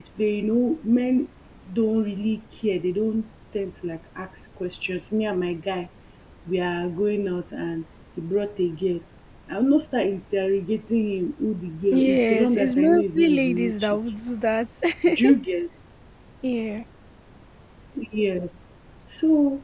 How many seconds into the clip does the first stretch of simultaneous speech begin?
12 s

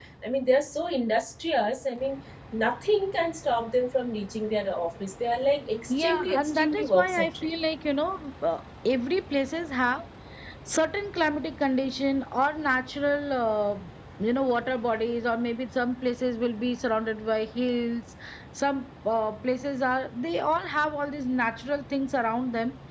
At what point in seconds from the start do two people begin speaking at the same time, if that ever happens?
6 s

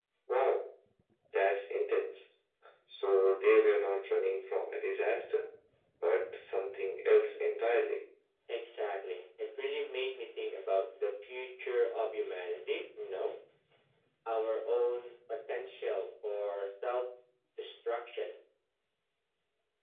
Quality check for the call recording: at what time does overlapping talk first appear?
none

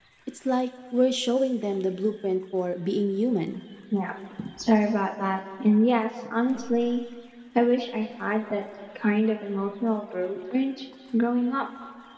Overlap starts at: none

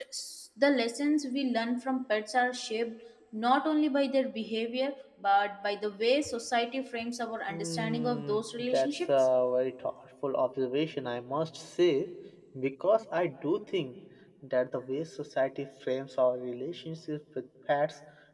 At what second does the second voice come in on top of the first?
7 s

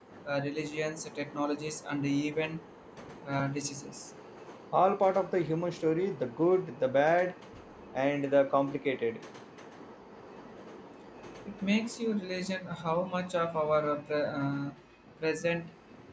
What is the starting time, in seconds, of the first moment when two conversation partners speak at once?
none

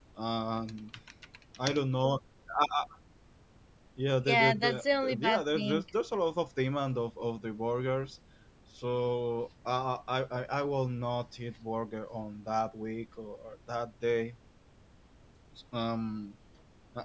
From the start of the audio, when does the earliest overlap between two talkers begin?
4 s

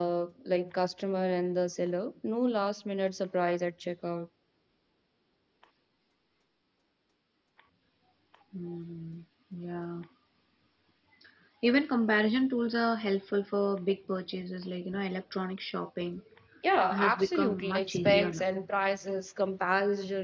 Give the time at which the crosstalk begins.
17 s

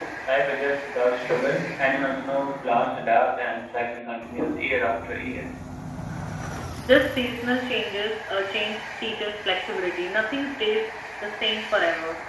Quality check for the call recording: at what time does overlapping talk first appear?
none

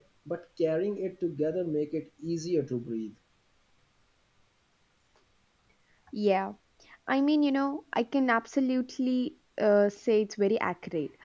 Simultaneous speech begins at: none

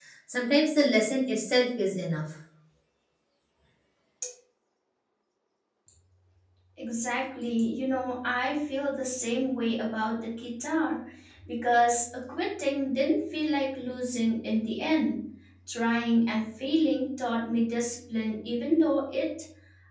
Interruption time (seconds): none

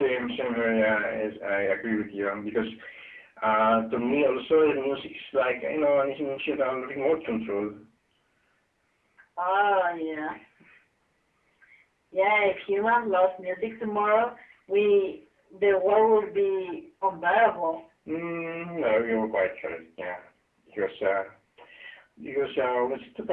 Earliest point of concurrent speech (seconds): none

